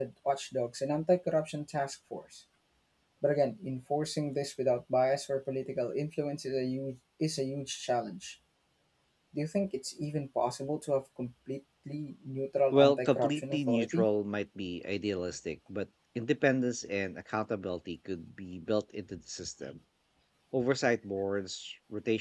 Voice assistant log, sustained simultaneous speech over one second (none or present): present